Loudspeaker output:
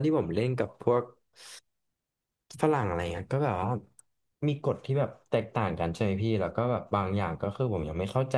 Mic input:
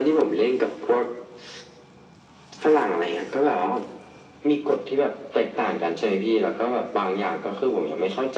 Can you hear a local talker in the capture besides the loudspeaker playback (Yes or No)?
No